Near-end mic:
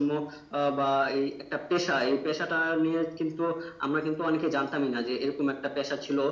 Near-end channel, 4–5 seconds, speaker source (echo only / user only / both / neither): echo only